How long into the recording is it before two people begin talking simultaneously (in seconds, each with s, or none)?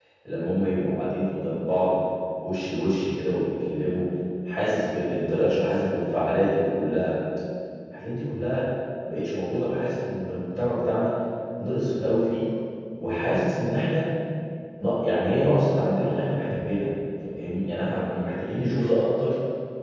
none